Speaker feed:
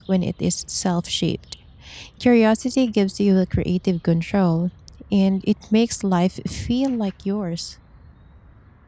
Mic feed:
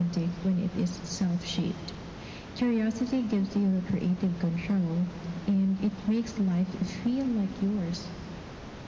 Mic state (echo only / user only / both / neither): echo only